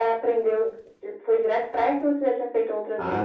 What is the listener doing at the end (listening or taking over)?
taking over